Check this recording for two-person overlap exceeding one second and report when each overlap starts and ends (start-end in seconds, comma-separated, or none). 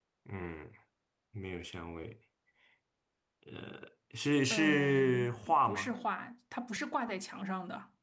4.5-5.9